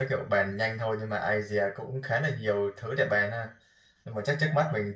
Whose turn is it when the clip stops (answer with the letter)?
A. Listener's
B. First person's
B